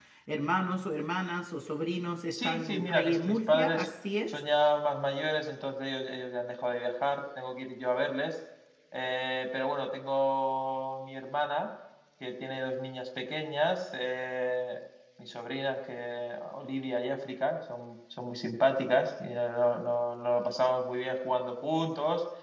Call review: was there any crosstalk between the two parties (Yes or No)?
Yes